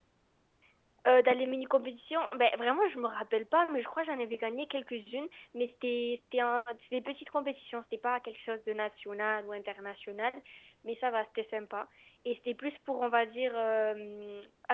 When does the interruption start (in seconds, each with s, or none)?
none